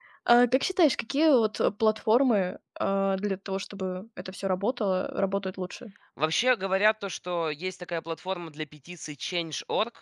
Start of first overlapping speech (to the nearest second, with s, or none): none